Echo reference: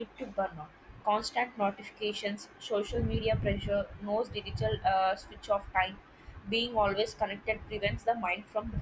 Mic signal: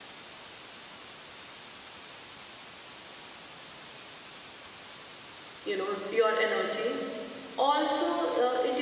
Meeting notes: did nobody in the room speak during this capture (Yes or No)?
No